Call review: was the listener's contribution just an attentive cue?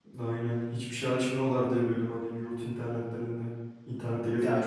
No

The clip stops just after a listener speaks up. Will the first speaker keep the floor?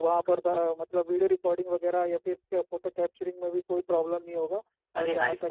No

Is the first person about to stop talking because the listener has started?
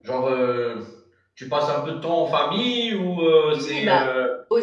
Yes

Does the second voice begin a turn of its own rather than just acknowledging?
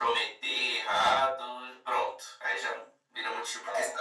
Yes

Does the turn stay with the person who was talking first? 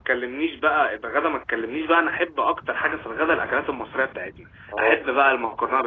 Yes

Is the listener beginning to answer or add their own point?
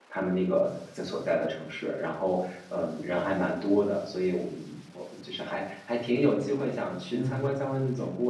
No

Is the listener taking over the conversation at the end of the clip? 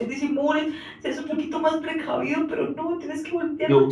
No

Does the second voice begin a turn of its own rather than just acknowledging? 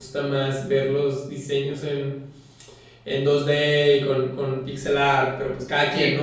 No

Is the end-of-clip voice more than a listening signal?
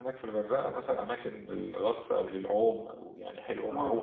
Yes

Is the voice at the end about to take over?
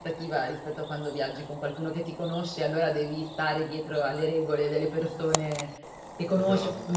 No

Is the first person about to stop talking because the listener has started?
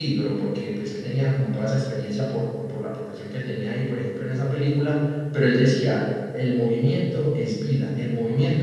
No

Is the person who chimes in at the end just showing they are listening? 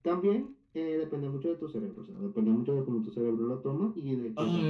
No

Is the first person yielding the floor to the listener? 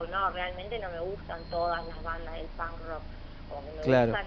No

